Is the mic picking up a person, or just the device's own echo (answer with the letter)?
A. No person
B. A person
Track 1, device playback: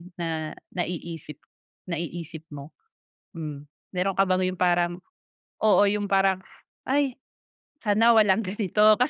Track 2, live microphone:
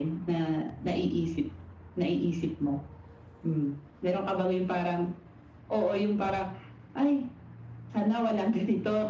A